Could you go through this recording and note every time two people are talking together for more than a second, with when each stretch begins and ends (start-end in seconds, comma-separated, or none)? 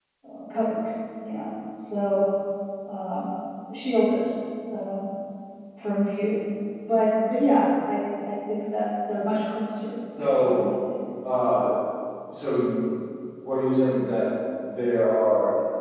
none